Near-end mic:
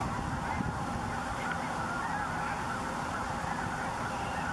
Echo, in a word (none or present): none